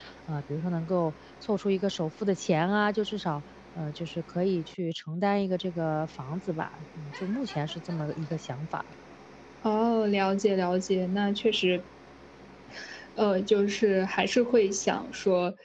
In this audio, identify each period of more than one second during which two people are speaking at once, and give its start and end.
none

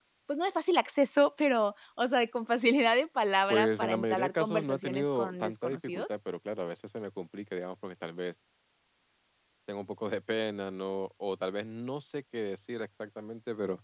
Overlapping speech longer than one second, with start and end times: 3.5-6.1

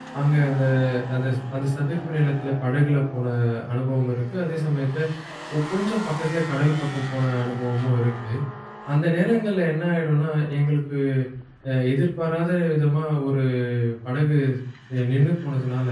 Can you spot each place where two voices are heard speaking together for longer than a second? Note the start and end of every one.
none

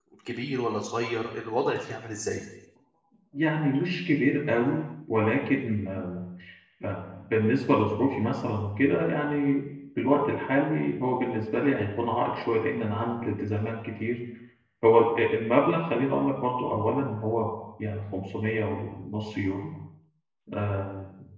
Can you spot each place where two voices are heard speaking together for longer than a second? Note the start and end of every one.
none

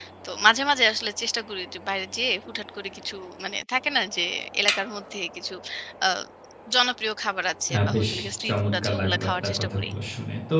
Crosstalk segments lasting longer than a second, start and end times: 8.5-9.9

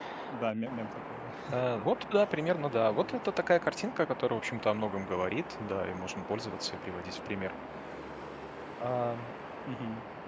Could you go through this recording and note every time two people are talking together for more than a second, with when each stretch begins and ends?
none

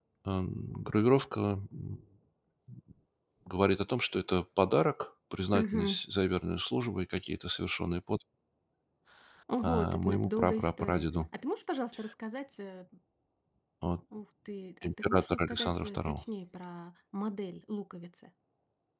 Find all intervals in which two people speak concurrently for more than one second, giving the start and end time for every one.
9.6-11.0, 14.8-16.2

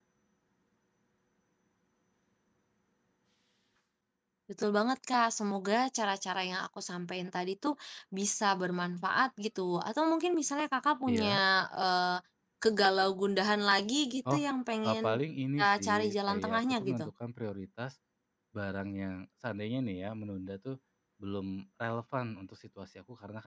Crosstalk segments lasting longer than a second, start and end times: 15.6-17.1

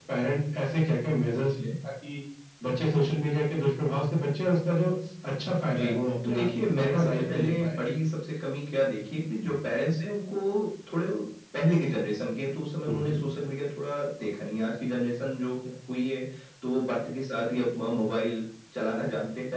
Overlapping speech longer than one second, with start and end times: 5.6-7.8

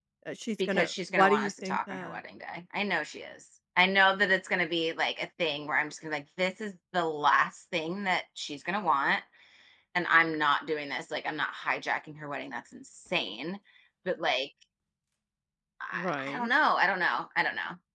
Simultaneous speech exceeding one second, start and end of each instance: 0.7-2.2

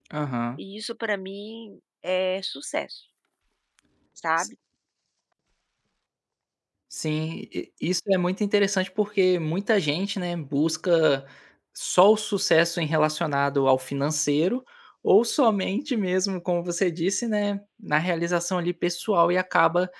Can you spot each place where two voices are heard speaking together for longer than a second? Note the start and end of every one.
none

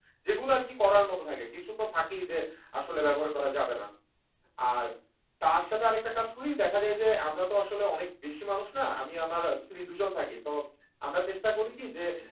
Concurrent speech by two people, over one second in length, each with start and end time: none

